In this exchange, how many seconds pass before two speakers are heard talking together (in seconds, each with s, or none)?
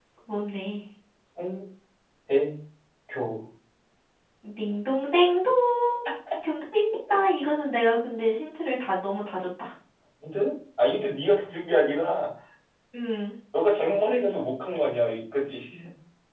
none